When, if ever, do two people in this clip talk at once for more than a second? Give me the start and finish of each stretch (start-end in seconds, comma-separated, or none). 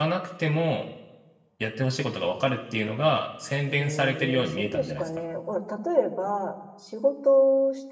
3.7-5.1